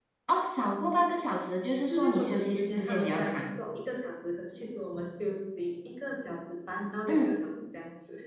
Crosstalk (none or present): present